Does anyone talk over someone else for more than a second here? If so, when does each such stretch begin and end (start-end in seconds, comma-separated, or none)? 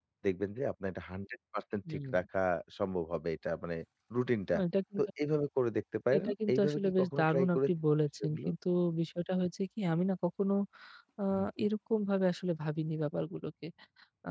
6.2-7.6